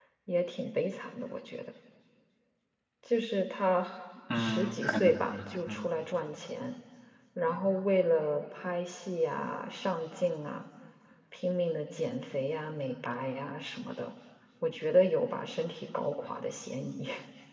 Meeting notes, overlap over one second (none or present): present